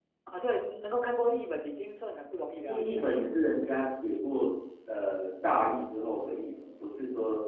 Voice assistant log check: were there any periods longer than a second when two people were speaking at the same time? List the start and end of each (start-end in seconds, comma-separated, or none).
none